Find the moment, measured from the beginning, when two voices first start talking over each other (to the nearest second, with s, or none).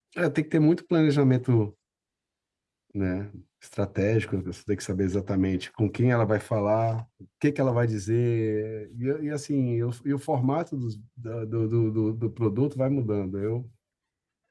none